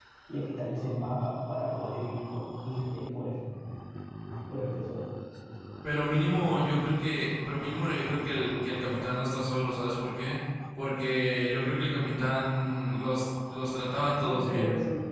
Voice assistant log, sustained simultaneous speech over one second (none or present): none